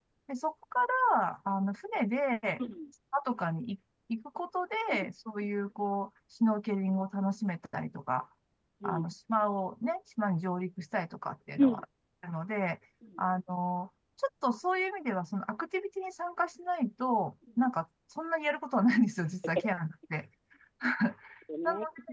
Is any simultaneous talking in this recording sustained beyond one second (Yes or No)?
No